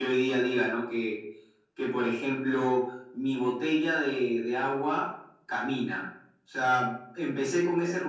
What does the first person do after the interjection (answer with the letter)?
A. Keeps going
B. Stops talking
A